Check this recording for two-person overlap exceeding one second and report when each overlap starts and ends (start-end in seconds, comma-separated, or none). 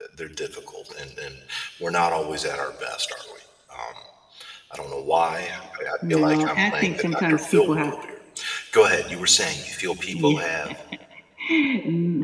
6.1-7.9